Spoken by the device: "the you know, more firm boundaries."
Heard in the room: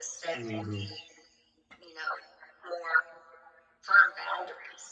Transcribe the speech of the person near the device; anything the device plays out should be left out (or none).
hmm